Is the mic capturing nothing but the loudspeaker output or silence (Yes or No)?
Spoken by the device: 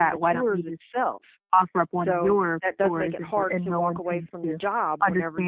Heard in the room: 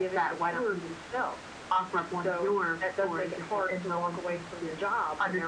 Yes